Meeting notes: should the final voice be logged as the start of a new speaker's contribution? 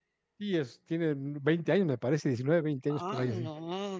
Yes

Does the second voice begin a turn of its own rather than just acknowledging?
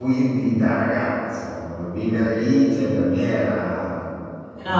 No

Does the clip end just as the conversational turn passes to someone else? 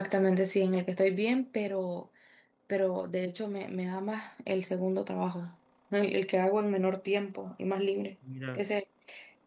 No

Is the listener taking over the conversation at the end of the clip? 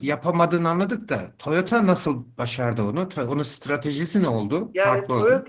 Yes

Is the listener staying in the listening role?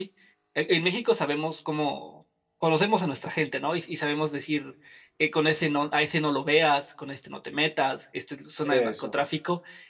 Yes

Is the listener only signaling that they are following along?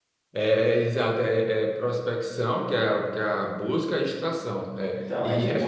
No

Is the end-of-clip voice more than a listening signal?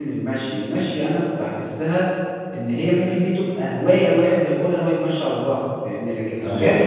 No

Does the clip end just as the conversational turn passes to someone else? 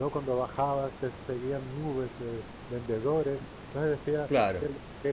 No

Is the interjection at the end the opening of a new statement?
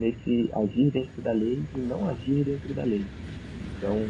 No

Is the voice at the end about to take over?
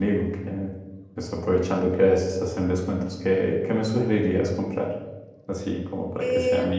Yes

